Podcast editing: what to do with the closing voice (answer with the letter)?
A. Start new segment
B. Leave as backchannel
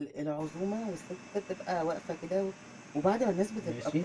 B